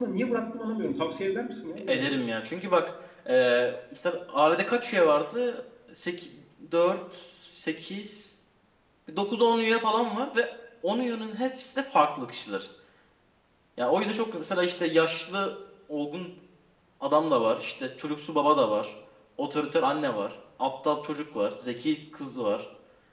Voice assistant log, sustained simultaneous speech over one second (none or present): none